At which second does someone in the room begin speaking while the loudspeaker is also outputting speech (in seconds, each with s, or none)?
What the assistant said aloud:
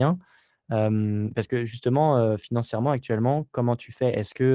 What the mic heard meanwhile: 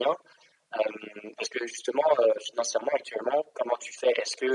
none